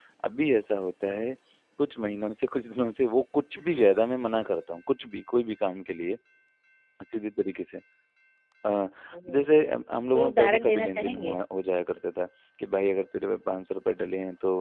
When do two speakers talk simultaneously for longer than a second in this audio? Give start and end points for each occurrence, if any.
10.1-11.4

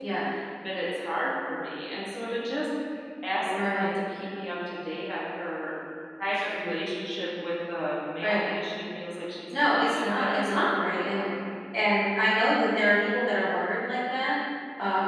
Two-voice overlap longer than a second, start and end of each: 9.5-11.2

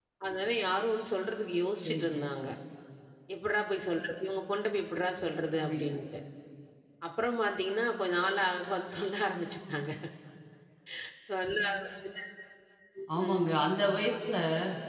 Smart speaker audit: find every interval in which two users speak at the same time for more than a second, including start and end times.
none

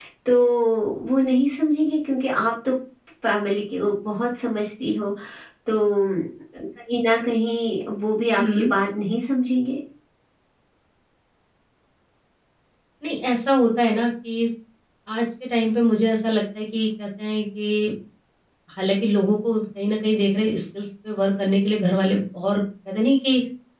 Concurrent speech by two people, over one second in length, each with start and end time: none

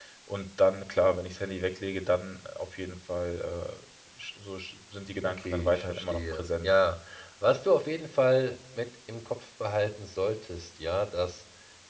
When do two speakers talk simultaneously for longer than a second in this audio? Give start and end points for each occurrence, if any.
5.2-6.7

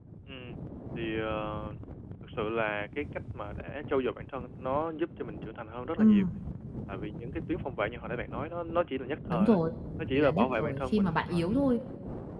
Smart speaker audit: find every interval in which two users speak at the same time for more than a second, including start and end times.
10.1-11.4

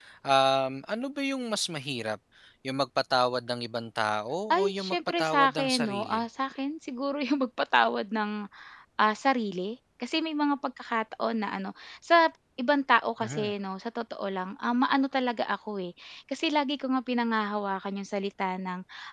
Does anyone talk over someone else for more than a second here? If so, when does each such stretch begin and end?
4.5-6.2

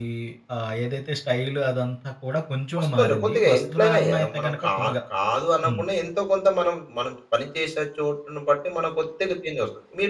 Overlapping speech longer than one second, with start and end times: 2.8-4.7

